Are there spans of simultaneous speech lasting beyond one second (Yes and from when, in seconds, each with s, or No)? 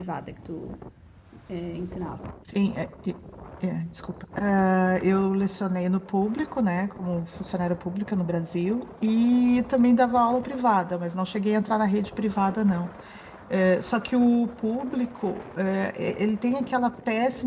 No